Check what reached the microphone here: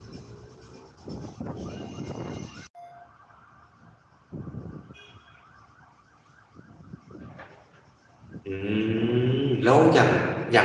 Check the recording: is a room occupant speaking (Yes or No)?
Yes